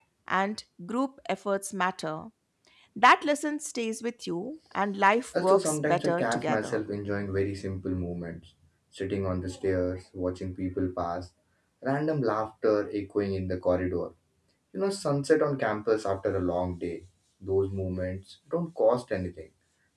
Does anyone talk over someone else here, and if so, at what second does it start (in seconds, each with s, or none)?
5.3 s